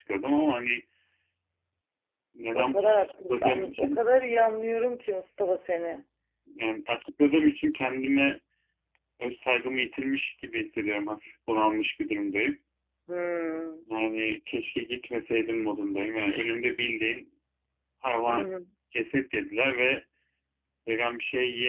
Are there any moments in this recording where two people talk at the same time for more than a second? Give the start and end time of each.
2.5-4.0

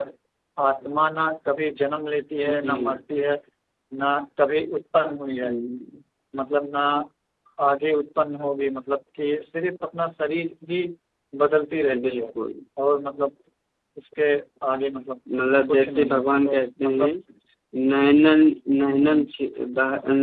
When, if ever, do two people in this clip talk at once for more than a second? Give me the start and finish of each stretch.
15.7-17.1

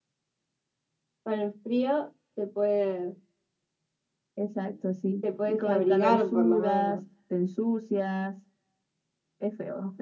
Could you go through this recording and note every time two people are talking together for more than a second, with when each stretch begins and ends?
5.4-7.0

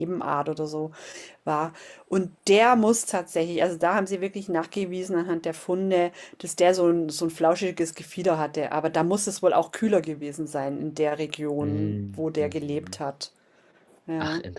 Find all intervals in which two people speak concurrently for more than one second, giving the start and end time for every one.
11.6-13.0

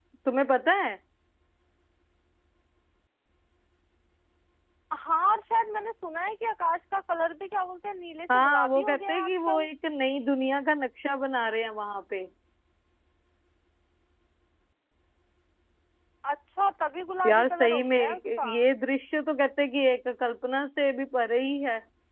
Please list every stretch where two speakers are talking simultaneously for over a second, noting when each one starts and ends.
8.3-9.7, 17.2-18.5

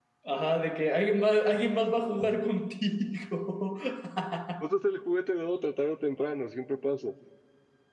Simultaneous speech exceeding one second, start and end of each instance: none

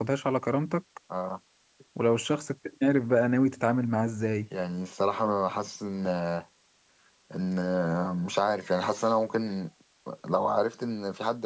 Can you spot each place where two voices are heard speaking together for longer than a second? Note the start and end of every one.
none

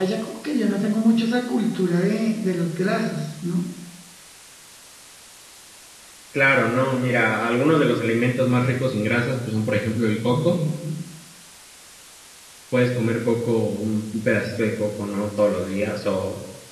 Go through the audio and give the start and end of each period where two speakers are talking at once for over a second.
none

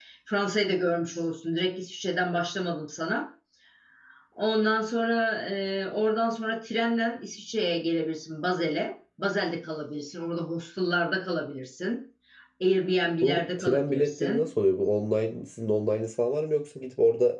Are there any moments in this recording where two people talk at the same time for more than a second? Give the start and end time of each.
13.2-14.4

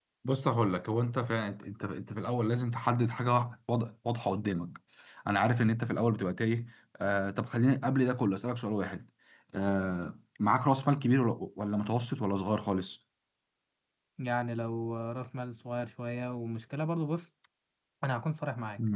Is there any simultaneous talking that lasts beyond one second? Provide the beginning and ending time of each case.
none

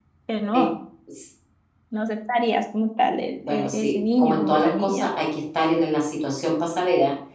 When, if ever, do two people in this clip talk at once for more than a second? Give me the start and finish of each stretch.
3.5-5.1

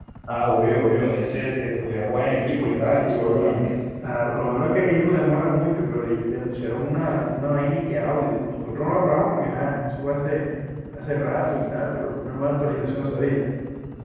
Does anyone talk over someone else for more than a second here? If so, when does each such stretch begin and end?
2.3-3.6

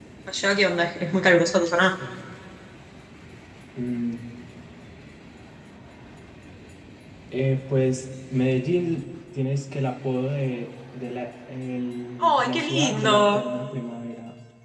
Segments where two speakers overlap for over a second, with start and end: 12.2-13.4

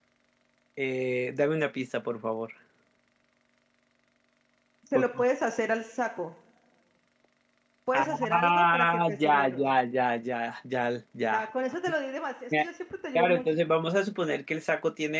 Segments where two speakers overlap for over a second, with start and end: 7.9-9.6

